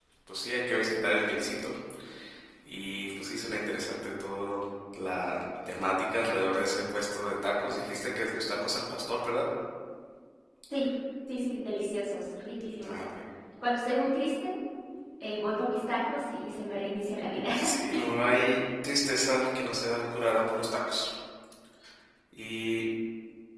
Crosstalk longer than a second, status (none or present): none